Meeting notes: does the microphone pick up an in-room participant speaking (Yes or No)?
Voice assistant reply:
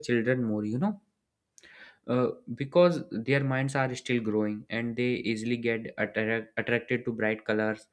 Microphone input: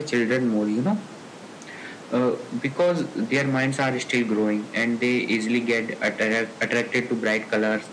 No